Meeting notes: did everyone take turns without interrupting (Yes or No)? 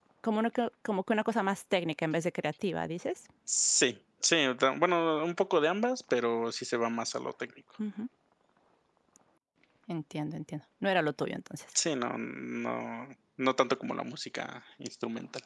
Yes